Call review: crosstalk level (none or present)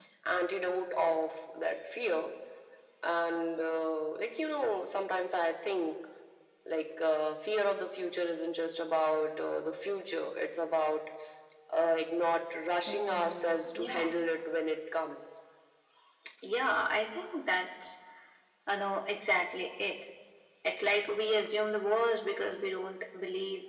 present